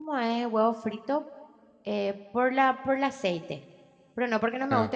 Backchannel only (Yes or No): Yes